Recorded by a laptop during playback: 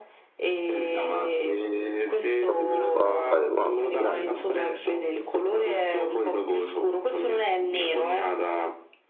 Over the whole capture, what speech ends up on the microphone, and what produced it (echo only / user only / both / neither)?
both